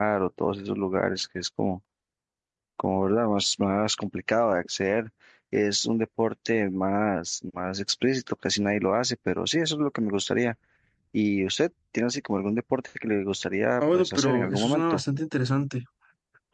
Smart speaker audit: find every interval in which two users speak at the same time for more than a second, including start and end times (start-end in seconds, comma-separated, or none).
13.8-15.0